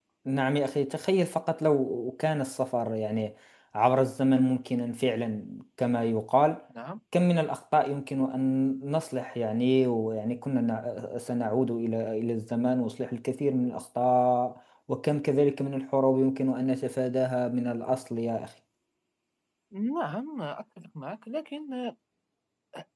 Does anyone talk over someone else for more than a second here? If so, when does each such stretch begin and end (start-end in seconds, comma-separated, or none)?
none